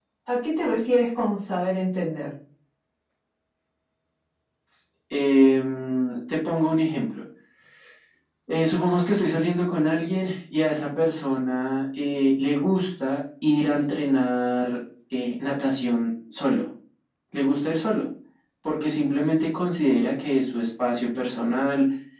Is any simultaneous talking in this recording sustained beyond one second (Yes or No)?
No